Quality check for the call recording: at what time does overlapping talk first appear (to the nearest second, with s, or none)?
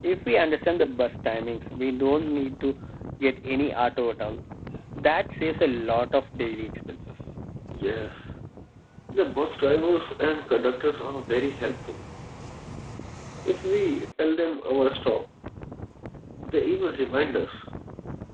none